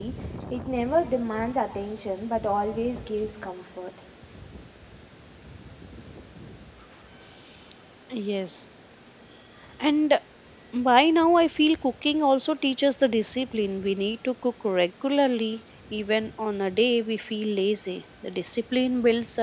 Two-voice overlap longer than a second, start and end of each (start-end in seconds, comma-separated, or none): none